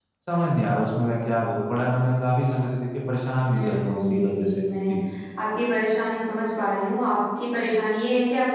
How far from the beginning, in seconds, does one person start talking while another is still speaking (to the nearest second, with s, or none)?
4 s